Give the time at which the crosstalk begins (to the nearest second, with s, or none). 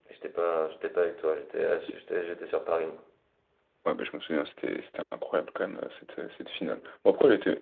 none